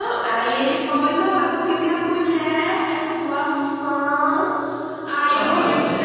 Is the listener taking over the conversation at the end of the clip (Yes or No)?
No